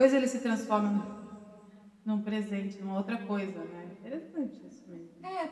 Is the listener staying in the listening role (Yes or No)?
No